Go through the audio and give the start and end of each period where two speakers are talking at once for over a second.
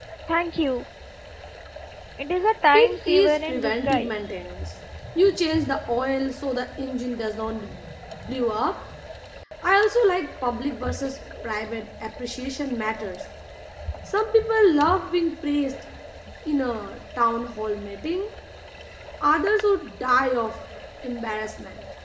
2.7-4.3

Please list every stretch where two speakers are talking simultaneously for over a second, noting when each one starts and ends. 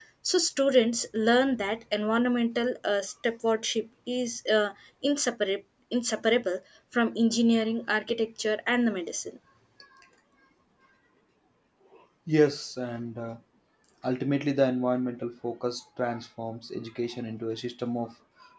none

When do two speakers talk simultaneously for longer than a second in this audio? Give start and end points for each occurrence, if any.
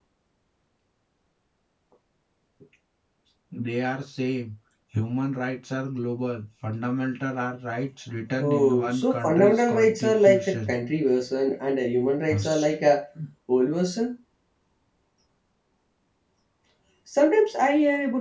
8.4-10.8

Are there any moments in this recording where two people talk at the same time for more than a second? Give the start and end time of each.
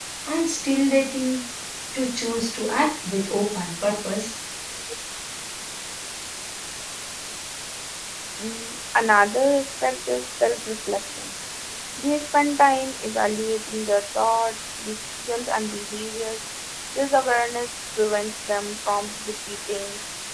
none

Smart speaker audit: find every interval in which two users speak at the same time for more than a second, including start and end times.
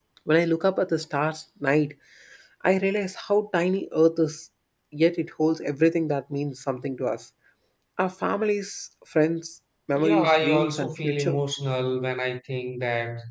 10.0-11.4

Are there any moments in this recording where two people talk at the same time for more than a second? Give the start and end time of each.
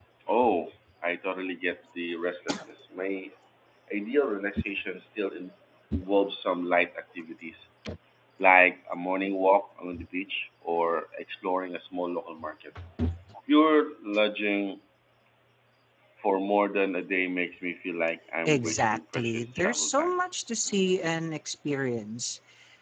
18.4-20.1

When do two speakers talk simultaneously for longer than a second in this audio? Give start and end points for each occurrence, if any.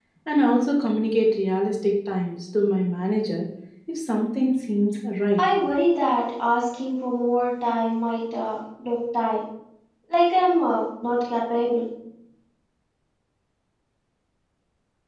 none

